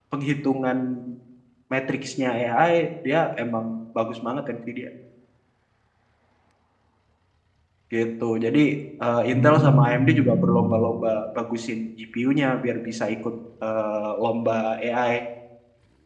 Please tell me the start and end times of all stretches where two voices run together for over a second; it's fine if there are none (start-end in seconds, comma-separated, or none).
9.3-10.9